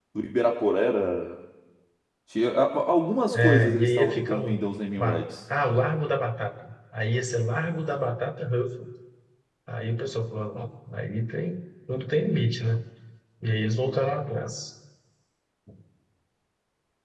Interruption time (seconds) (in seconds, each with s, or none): 3.3 s